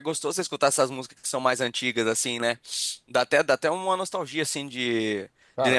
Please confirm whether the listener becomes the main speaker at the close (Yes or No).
No